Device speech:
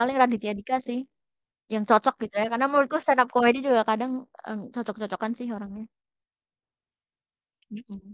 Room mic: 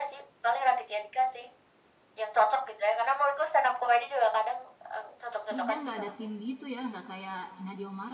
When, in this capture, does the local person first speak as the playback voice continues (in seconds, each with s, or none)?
5.5 s